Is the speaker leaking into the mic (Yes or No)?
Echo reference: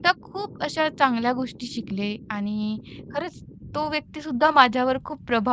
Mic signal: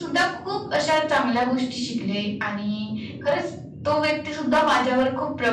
Yes